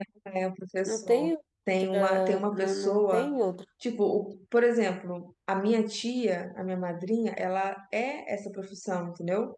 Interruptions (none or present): present